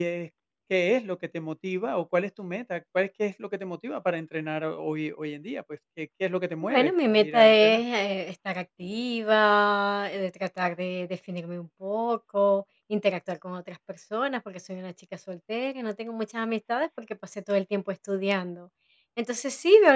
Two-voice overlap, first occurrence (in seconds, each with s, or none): 6.6 s